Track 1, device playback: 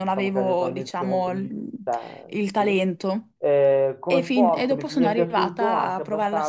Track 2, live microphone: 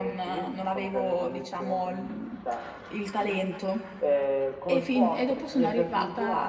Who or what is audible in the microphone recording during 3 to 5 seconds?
echo only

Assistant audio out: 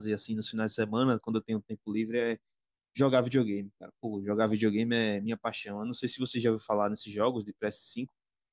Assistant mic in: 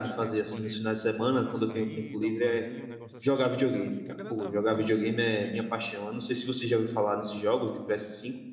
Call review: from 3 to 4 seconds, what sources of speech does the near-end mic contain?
both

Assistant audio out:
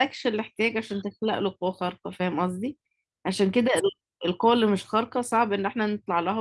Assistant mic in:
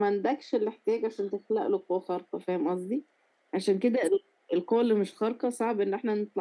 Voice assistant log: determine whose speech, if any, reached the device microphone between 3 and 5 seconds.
echo only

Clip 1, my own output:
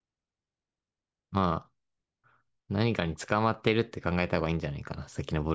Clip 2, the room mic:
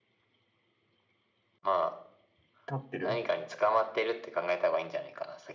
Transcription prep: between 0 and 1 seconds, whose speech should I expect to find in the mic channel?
neither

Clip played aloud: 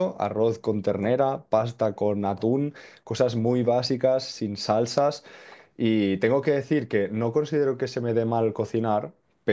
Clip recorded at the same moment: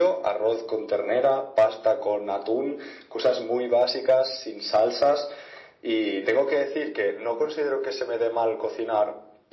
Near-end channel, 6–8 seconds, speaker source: echo only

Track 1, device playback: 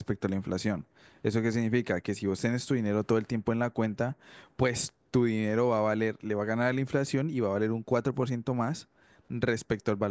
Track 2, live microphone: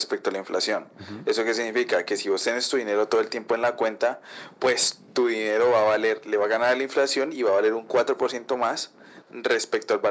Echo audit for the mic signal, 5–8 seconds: echo only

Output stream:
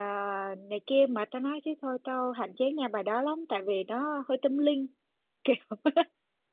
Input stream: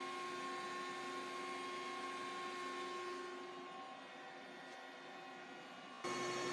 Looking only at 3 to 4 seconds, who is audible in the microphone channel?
neither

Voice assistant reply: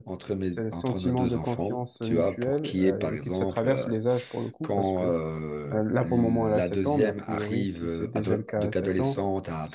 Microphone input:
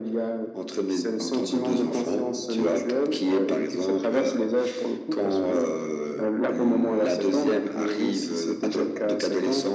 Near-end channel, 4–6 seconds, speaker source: echo only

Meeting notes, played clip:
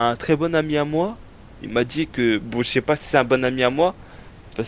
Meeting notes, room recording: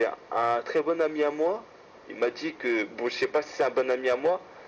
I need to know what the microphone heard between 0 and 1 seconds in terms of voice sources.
echo only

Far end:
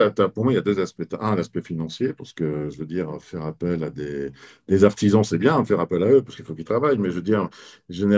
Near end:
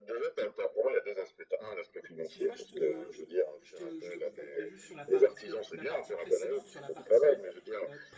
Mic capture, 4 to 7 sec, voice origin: both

